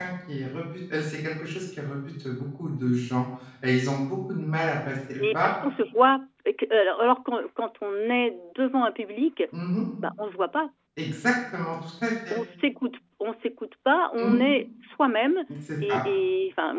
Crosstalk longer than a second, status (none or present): none